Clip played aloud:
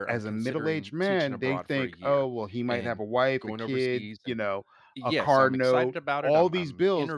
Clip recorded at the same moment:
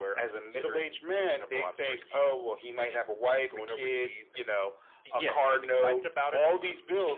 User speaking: No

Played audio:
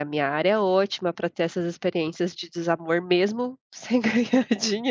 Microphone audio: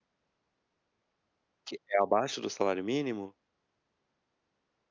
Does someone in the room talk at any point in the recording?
Yes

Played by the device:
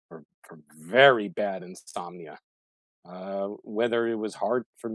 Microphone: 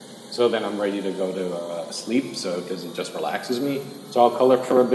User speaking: Yes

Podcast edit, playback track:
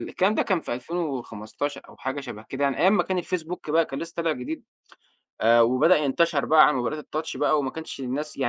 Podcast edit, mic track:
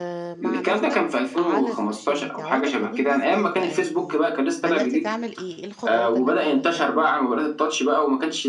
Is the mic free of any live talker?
No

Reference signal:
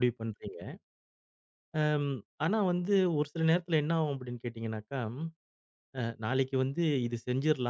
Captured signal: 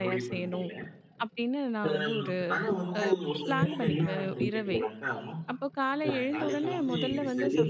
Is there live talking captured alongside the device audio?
Yes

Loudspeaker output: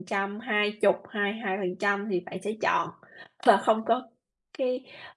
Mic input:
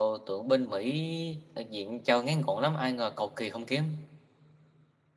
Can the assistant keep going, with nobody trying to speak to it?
No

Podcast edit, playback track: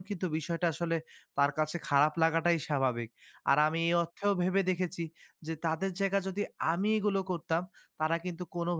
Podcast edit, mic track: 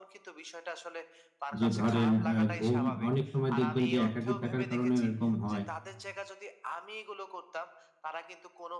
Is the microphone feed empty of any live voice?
No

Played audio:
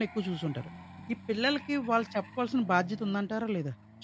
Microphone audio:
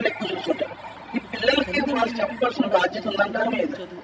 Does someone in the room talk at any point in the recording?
Yes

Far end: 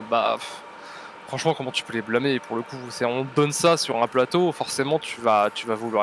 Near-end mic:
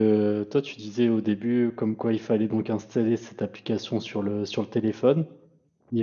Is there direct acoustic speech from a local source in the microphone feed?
Yes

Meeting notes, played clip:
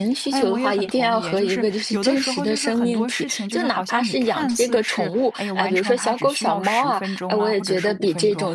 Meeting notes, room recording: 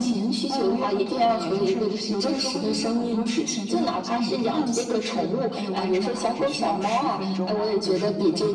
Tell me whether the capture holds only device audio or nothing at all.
Yes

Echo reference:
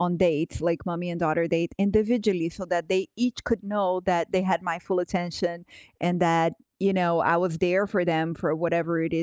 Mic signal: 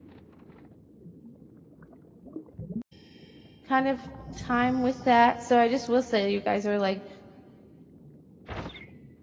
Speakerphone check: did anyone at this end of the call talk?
Yes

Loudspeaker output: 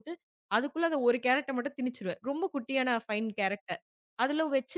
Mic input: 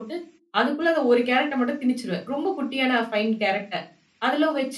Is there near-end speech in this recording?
No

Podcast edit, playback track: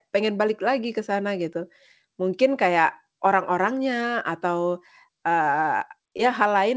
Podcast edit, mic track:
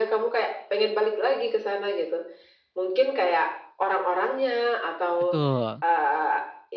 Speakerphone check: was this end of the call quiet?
No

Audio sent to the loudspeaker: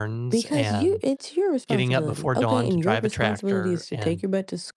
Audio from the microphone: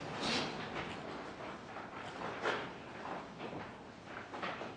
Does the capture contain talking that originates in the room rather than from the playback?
No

